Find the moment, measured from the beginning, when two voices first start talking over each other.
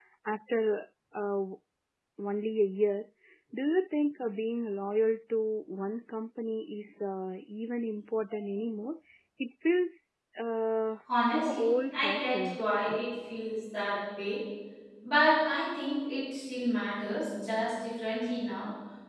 11 s

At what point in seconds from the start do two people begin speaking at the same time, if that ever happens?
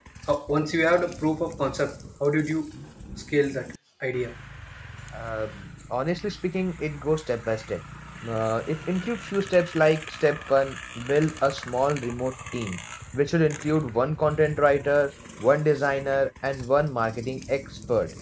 none

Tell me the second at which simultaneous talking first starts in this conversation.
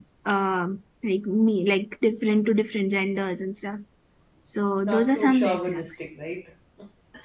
5 s

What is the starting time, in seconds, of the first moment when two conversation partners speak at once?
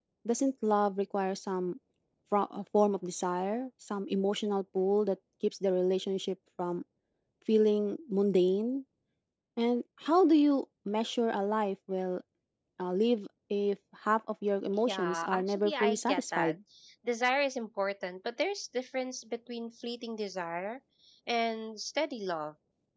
15 s

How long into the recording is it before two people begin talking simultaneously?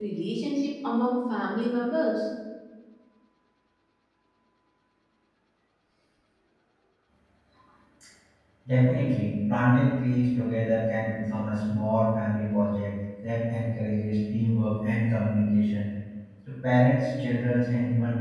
none

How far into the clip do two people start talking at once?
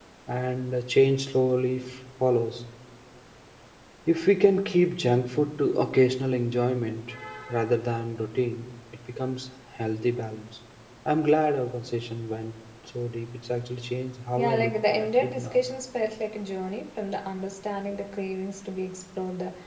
14 s

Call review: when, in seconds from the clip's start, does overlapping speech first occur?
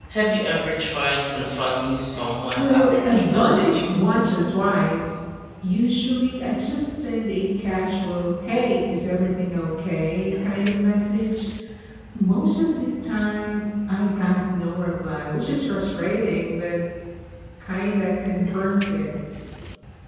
3 s

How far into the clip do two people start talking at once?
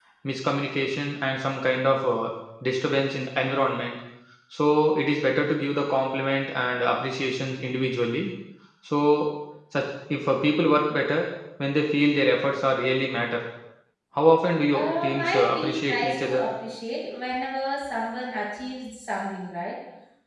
15 s

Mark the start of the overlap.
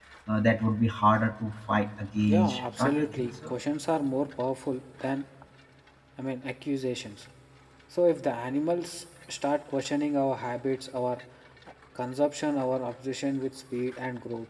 2 s

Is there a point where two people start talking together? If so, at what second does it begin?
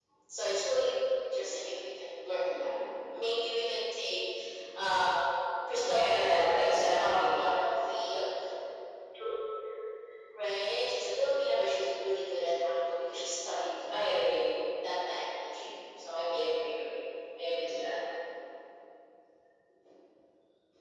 6 s

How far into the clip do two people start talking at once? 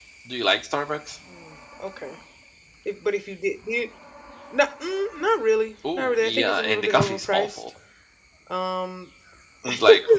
6 s

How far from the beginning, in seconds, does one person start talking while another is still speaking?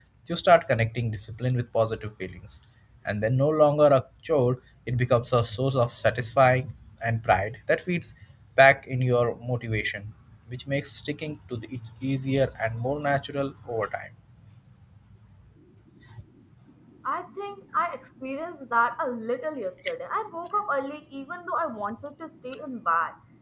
none

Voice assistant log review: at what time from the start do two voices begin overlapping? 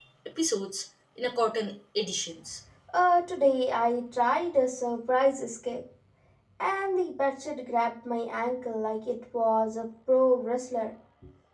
none

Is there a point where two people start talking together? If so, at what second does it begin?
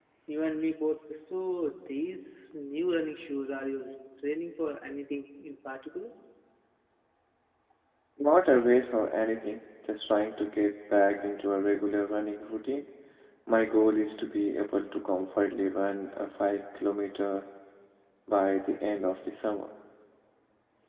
none

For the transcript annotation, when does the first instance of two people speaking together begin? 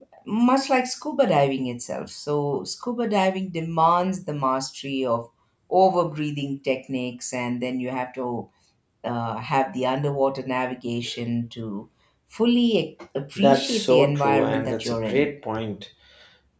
13 s

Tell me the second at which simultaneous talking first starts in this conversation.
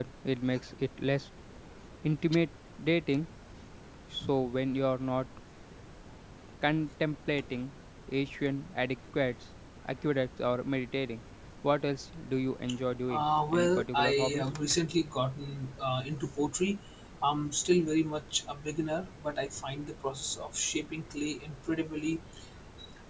13 s

